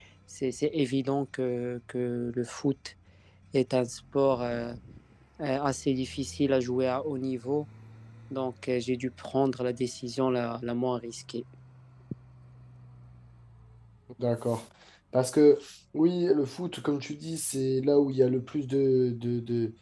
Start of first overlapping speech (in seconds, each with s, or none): none